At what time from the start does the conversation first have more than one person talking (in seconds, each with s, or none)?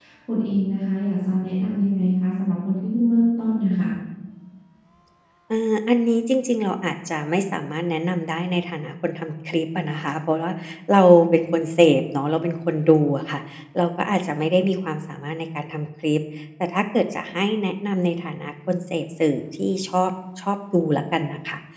none